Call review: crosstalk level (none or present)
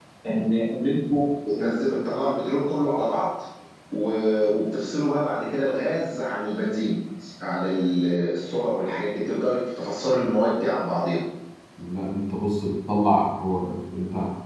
none